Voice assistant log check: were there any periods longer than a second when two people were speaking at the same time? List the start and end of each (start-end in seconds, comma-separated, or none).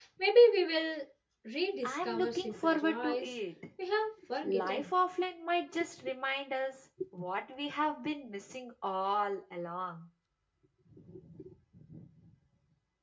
1.8-3.3